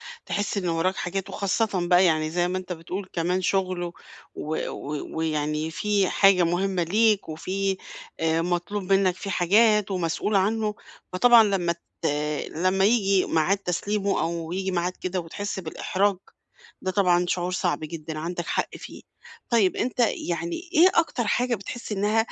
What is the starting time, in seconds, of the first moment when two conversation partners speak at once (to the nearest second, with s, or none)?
none